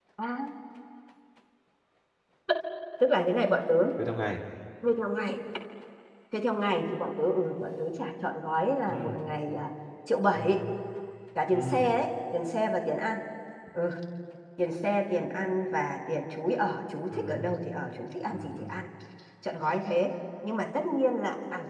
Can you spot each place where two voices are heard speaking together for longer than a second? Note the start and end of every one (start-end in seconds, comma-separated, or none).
none